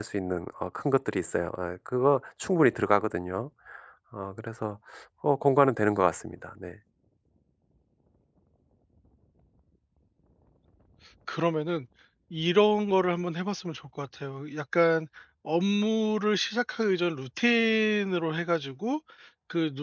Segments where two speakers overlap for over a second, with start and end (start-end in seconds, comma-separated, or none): none